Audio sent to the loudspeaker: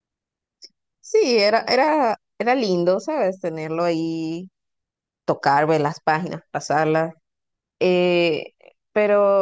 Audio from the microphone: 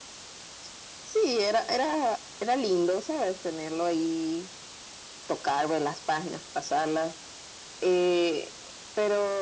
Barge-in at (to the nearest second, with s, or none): none